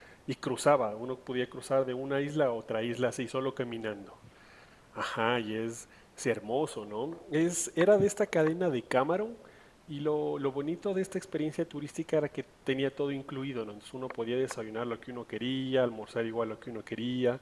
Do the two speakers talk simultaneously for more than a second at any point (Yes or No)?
No